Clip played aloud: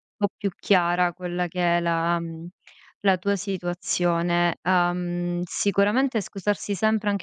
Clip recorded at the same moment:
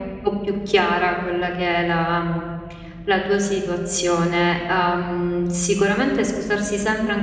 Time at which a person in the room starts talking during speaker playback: none

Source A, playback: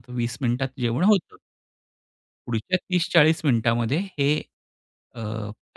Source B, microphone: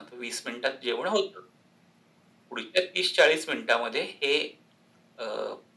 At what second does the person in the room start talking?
none

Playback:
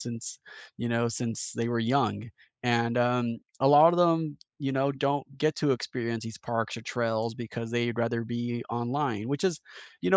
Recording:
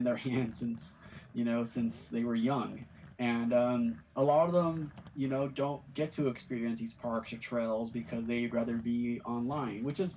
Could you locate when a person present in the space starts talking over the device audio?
none

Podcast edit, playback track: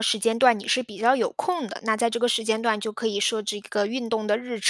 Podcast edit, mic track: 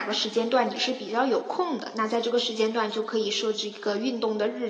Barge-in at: none

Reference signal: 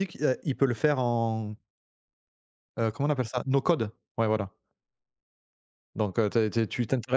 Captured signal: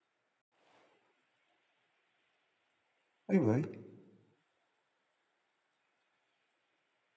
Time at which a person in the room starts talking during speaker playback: 3.3 s

